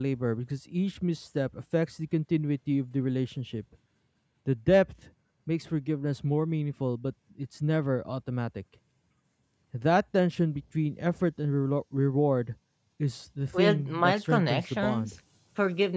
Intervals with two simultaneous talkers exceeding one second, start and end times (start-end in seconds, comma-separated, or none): 13.5-15.1